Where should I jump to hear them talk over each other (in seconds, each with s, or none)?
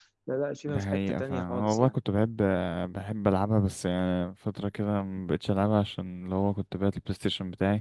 0.7 s